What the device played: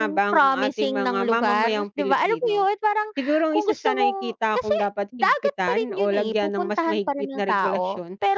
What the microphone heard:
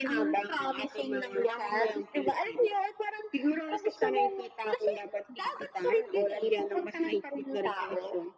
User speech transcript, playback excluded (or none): none